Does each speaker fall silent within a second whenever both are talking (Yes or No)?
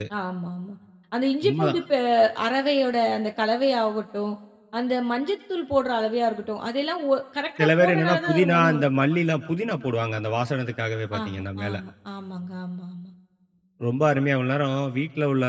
No